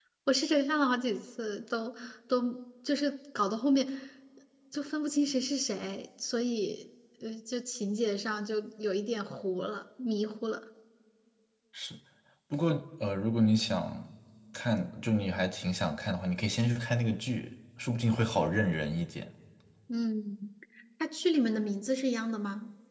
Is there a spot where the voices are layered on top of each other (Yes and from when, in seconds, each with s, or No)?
No